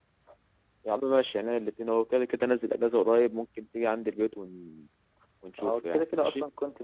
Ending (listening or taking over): taking over